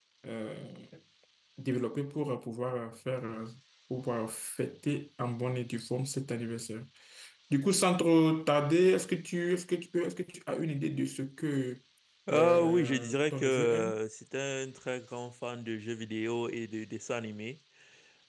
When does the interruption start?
12.3 s

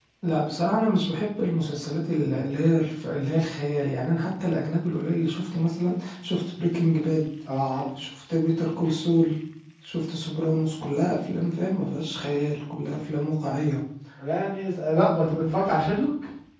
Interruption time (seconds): none

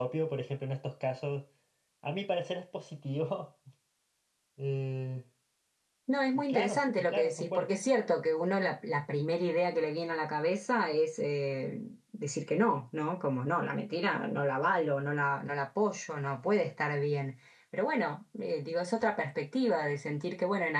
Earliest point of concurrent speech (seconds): 6.3 s

